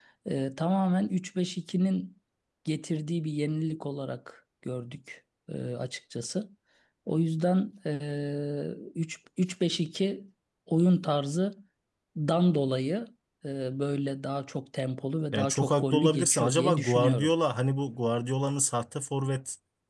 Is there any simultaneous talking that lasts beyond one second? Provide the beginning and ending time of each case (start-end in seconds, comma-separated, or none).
15.3-17.3